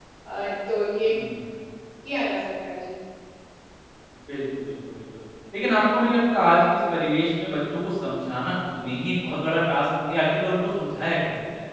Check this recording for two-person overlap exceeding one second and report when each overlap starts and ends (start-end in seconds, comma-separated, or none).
none